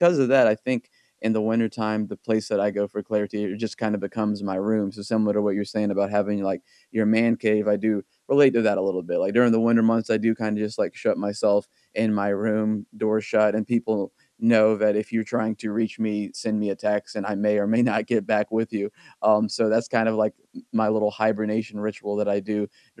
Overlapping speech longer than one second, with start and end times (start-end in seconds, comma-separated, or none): none